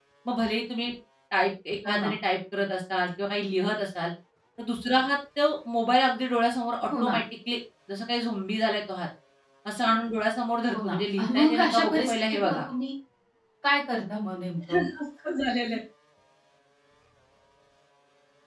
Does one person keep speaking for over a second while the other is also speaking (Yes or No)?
Yes